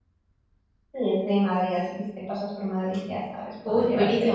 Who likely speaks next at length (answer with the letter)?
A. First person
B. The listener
B